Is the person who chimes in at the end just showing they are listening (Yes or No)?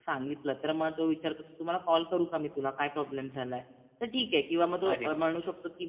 Yes